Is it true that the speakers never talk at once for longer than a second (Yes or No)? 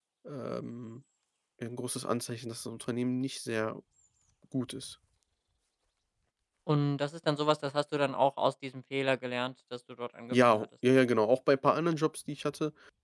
Yes